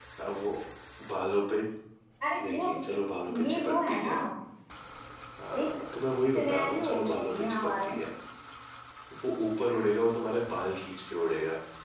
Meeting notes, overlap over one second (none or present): present